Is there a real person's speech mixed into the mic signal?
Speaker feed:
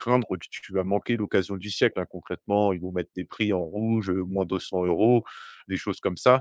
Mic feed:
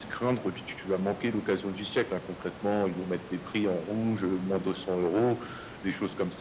No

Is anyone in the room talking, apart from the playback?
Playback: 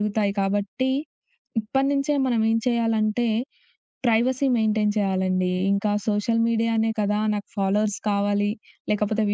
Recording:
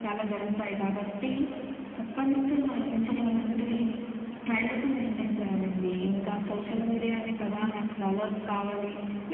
No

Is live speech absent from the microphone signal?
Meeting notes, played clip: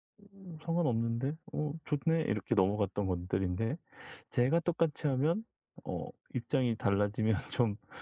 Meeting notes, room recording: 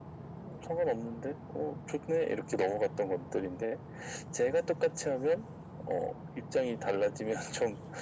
Yes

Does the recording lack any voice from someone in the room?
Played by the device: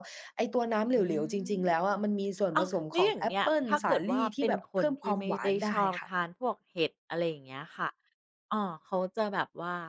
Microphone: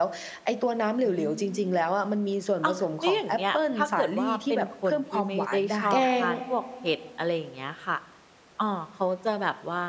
No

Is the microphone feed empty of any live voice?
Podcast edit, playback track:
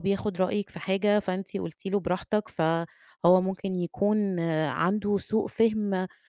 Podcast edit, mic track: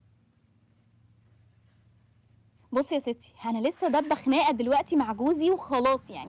No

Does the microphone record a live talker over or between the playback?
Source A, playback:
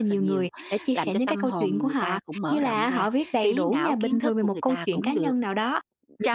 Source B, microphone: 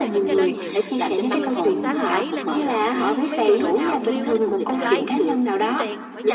Yes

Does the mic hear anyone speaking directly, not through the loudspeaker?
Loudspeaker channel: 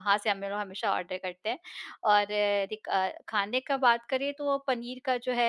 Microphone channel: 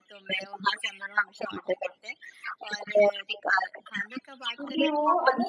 Yes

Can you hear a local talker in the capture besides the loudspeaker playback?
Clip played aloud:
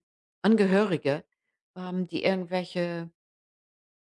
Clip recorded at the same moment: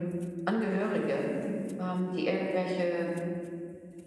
No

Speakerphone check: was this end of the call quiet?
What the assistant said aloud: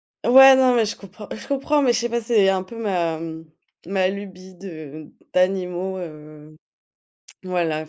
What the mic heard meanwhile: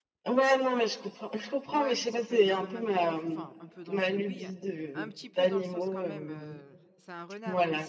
No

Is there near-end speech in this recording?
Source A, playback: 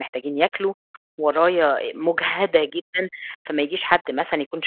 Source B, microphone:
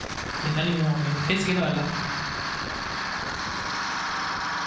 Yes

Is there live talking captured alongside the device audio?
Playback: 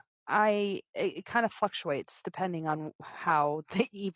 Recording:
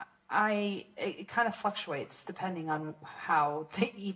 No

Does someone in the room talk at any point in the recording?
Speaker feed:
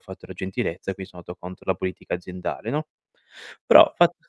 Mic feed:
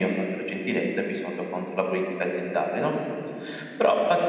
No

